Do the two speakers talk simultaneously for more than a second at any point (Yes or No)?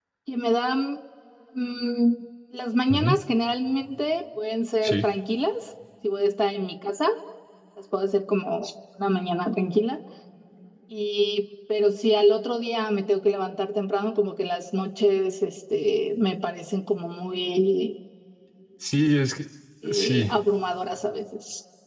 No